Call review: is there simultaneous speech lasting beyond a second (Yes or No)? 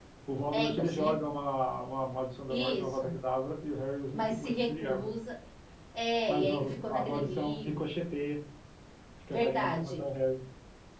Yes